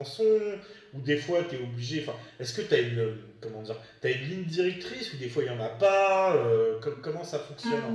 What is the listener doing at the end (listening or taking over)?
taking over